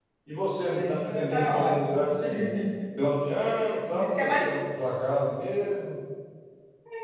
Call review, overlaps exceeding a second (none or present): present